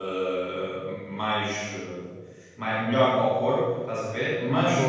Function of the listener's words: listening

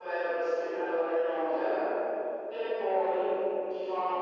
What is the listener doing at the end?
taking over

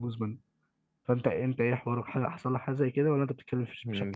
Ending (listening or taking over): taking over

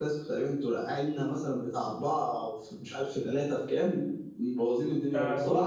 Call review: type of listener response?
taking over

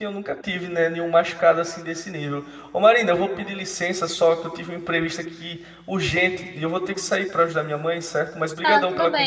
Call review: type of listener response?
taking over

